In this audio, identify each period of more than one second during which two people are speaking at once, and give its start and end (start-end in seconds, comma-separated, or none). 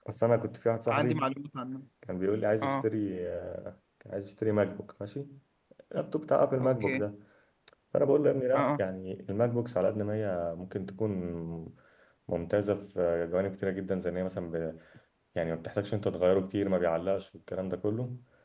none